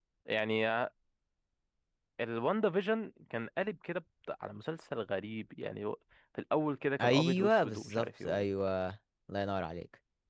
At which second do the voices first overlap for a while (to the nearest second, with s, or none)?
7 s